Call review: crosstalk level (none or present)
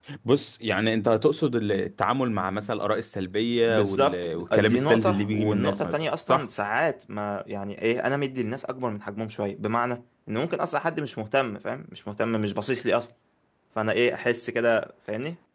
present